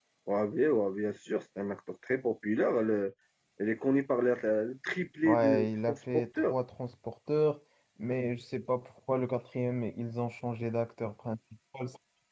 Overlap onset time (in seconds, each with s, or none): 5.2 s